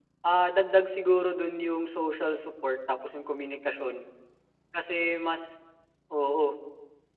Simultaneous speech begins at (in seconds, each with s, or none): none